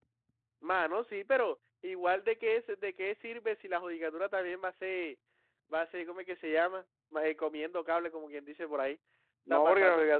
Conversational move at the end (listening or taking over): taking over